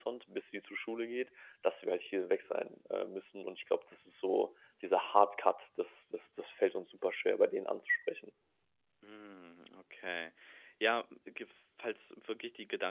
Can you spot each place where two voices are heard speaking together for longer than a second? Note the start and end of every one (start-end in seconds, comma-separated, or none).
none